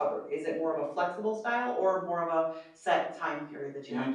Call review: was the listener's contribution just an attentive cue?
No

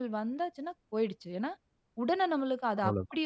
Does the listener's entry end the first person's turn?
No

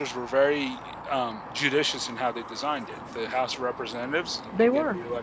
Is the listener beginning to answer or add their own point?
No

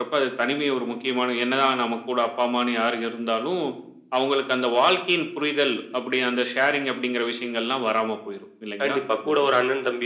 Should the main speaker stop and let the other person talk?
Yes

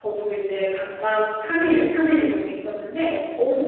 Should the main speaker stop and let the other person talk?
No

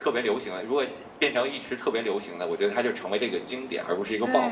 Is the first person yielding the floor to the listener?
Yes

